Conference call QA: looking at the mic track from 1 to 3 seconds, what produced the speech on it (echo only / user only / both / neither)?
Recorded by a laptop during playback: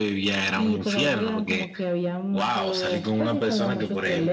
echo only